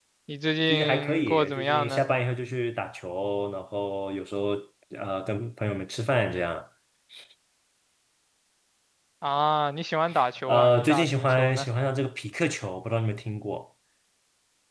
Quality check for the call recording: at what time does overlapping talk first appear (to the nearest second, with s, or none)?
1 s